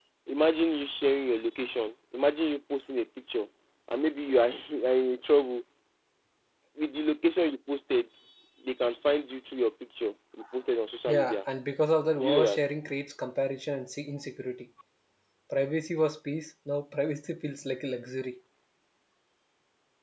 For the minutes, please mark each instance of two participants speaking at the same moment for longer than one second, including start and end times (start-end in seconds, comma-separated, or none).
none